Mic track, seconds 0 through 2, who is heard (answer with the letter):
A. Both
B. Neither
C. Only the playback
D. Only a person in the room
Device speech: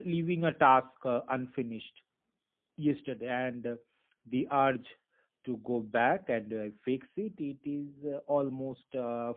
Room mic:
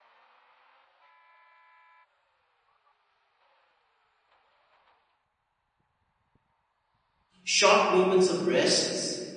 B